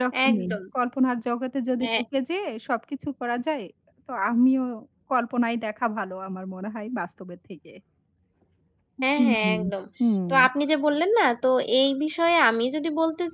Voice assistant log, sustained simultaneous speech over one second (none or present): none